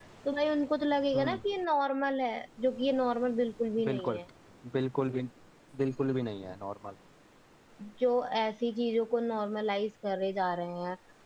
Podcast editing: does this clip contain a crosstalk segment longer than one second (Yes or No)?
No